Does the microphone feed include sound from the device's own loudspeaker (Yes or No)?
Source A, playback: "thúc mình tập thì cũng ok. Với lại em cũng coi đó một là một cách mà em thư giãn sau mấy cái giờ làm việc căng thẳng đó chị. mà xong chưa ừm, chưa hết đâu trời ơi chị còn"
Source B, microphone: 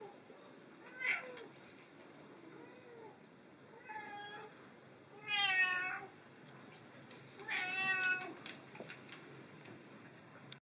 No